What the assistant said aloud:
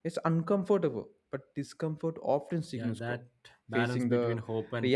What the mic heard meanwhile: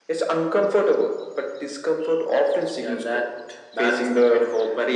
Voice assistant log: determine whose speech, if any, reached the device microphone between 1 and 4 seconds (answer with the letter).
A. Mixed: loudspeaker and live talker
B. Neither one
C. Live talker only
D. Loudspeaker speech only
D